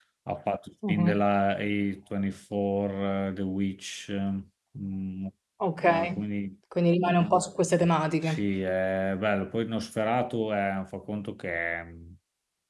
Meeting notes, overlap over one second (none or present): none